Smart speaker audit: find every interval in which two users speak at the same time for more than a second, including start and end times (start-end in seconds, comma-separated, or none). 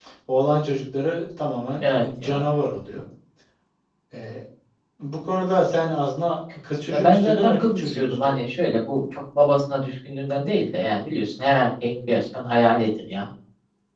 6.9-8.3